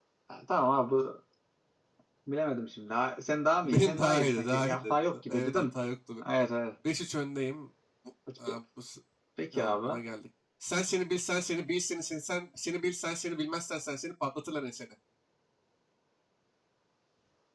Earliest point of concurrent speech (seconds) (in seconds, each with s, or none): 3.6 s